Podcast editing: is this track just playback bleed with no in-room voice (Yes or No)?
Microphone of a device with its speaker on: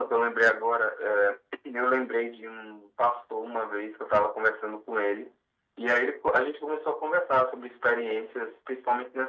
Yes